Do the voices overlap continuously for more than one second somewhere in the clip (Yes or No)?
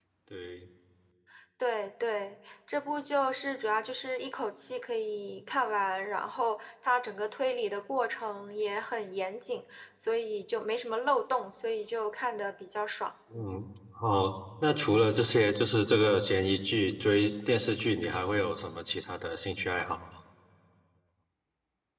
No